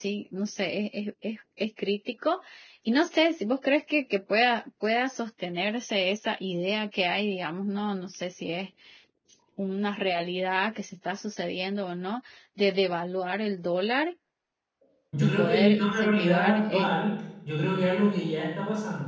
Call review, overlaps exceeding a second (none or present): present